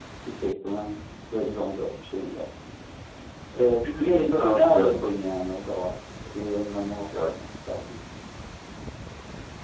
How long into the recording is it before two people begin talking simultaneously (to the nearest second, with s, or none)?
4 s